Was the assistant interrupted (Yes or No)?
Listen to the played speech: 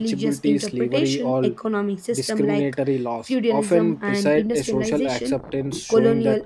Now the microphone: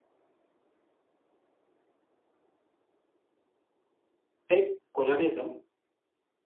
Yes